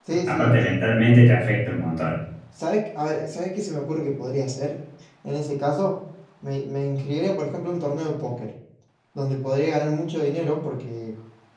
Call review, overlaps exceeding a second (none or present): none